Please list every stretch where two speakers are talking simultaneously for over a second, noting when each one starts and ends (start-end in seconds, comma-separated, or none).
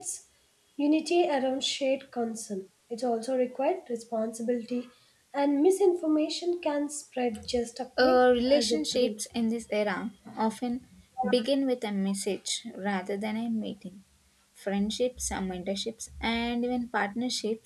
8.0-9.2